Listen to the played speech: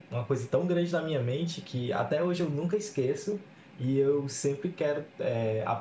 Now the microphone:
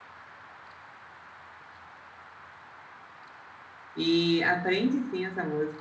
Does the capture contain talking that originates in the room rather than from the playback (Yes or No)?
Yes